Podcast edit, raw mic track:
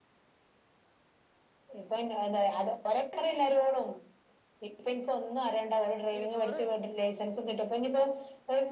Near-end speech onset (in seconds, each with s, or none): 6.2 s